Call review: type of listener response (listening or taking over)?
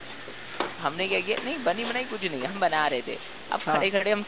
listening